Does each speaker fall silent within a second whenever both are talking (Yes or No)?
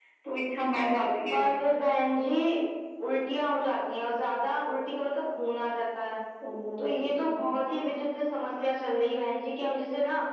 Yes